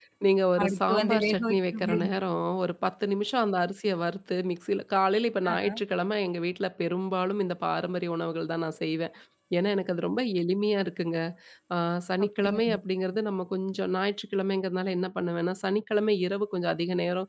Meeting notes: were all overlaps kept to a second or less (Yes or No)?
No